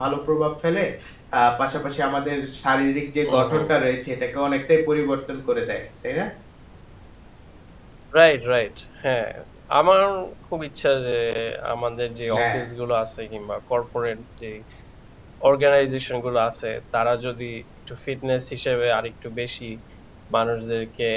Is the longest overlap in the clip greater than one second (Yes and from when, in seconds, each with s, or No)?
No